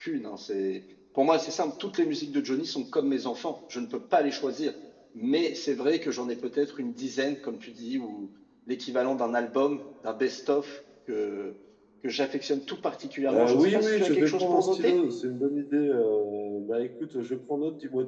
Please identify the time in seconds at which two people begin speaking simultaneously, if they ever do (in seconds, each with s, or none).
13.3 s